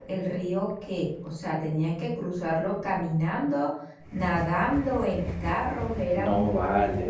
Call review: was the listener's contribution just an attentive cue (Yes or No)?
No